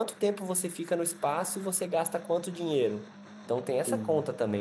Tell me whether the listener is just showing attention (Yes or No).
Yes